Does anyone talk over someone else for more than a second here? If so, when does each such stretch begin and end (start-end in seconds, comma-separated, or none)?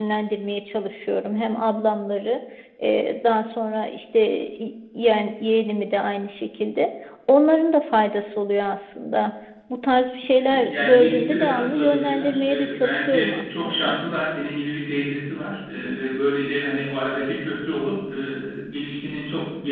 10.5-14.0